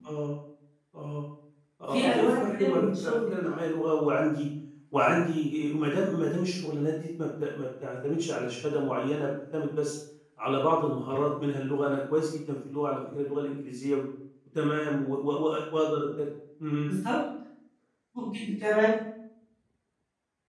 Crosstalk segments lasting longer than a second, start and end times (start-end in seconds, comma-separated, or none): 1.9-3.3